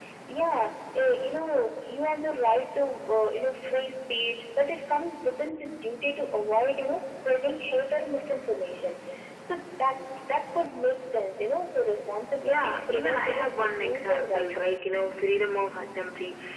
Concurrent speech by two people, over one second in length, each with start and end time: 12.4-14.8

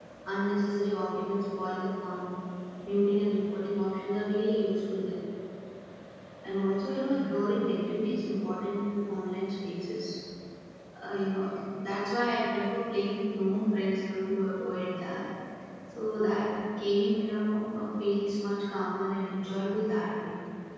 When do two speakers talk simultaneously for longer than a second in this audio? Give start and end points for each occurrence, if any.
none

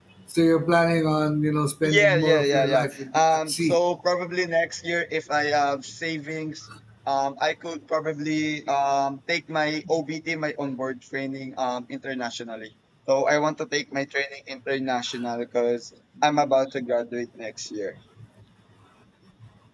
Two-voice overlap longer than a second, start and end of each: 1.8-3.8

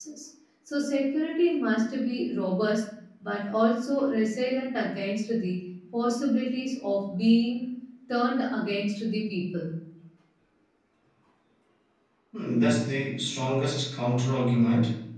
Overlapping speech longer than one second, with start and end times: none

